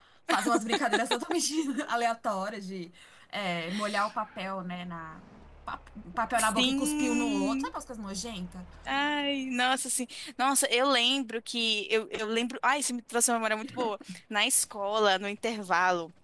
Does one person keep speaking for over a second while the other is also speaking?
Yes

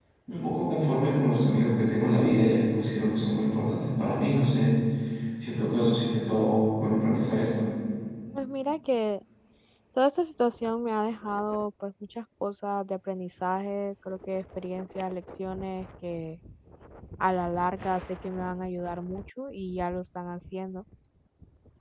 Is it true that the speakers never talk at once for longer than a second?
Yes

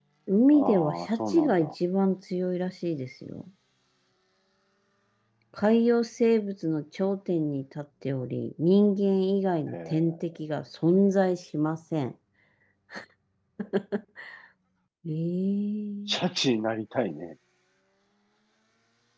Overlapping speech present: Yes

